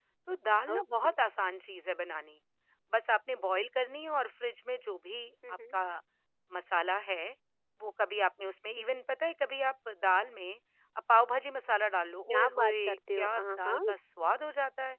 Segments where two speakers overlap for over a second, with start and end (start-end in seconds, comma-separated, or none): 12.3-13.8